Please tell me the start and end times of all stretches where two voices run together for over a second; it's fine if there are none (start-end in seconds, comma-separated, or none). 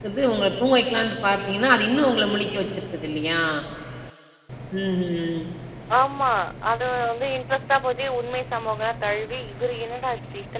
none